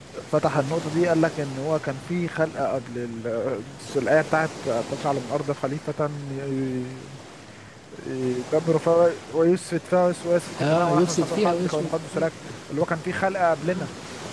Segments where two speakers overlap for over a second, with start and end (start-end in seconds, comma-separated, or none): 10.6-12.3